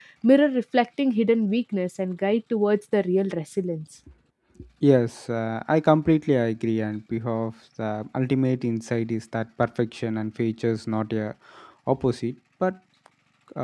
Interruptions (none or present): none